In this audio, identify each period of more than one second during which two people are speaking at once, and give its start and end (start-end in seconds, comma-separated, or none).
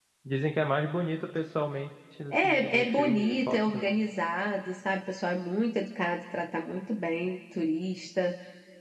2.3-3.9